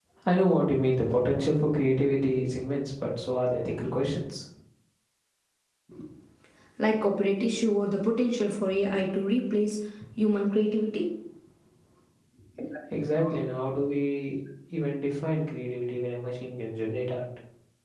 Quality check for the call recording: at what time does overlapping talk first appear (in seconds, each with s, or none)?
none